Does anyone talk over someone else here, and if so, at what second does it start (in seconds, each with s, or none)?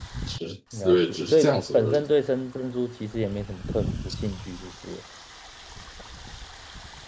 0.7 s